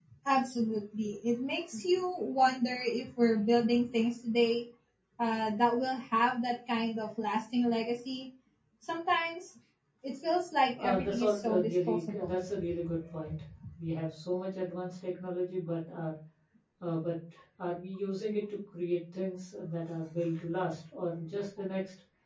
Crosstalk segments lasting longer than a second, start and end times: 10.8-12.4

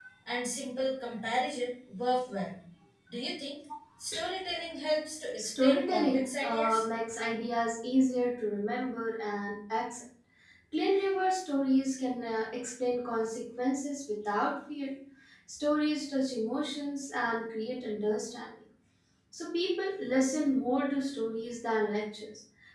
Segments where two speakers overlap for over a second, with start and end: 5.4-6.8

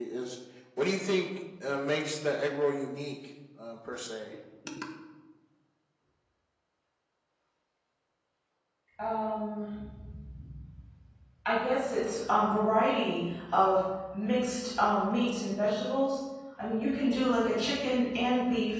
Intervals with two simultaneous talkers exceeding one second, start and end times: none

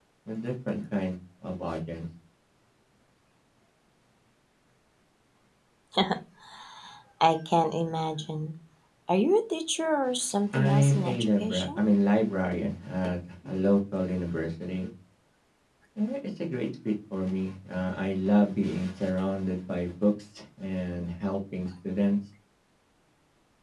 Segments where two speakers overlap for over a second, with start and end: 10.5-11.8

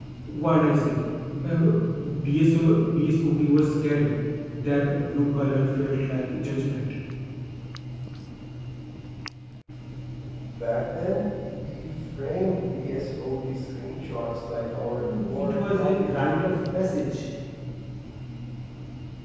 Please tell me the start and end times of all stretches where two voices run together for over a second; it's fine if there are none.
15.0-16.3

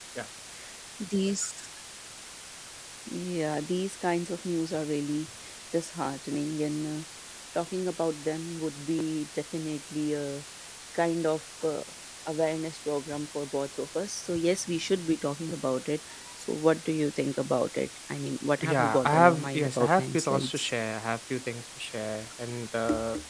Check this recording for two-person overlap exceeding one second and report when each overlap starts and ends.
18.6-20.7

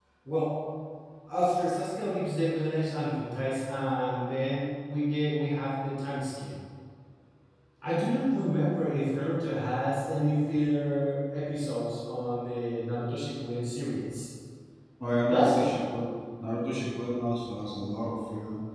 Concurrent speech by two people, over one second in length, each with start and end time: none

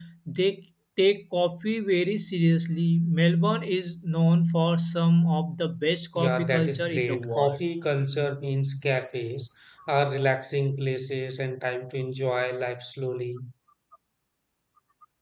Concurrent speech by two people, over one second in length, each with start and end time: 6.2-7.6

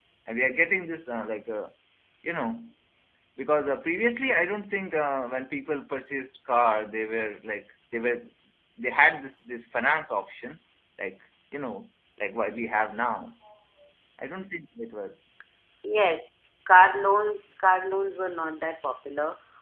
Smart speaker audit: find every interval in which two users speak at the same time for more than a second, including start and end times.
none

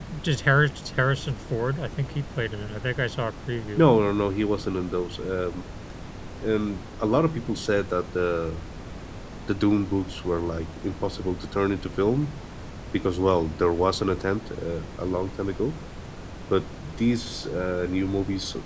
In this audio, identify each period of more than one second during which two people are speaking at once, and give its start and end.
none

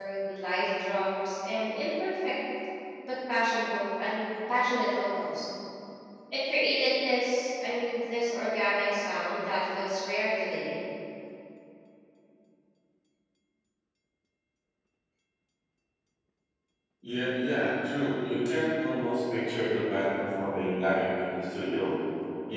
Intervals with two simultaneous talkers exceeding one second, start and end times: none

